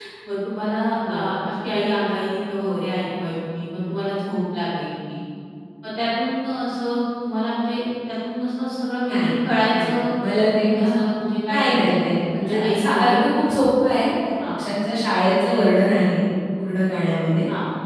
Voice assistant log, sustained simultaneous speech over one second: present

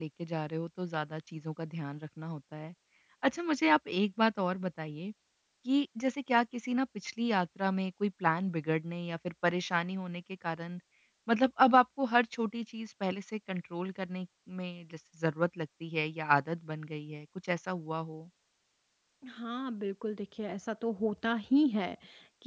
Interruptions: none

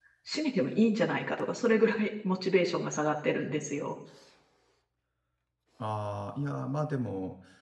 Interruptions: none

